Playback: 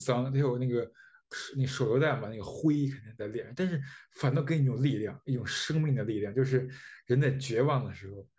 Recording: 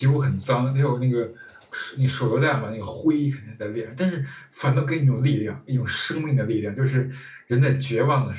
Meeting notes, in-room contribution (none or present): none